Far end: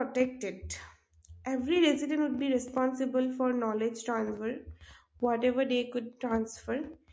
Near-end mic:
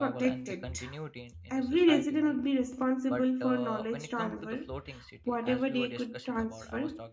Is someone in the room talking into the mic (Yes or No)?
Yes